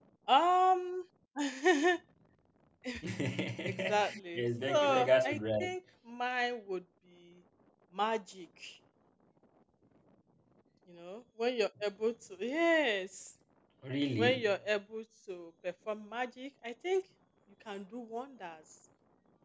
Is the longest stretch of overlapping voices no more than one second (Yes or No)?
No